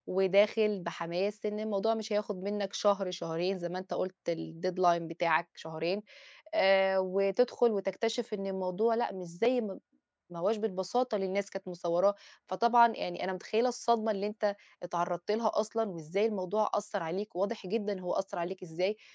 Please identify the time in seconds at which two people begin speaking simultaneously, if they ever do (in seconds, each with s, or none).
none